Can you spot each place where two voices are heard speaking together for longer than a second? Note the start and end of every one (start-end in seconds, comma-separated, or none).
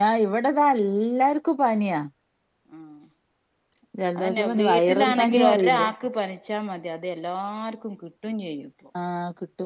4.2-5.9